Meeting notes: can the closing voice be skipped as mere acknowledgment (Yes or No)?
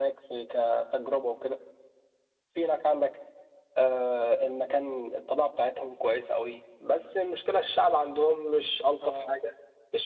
Yes